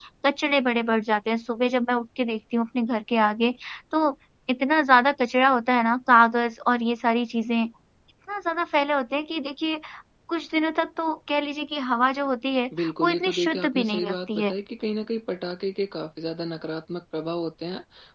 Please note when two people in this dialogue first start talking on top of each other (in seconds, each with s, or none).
12.7 s